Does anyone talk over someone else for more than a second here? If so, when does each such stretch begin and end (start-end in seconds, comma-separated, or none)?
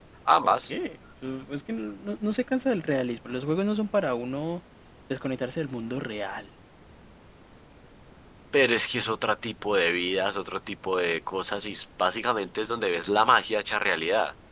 none